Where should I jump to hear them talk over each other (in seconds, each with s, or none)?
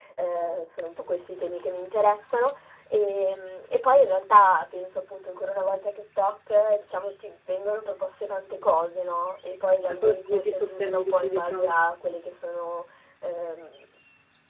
10.0 s